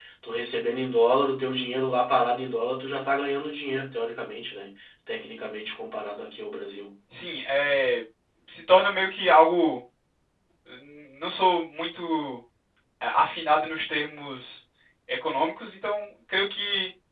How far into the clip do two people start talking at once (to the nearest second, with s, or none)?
none